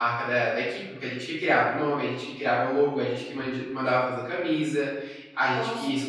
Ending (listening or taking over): listening